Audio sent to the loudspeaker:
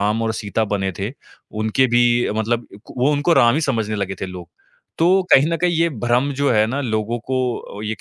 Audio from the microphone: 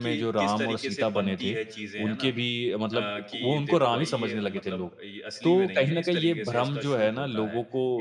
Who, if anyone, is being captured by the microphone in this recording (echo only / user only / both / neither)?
both